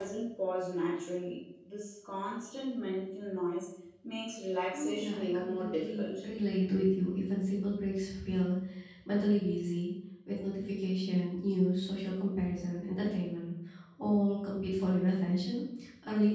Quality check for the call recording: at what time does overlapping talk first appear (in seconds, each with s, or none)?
4.7 s